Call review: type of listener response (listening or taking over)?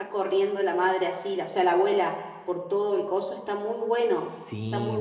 taking over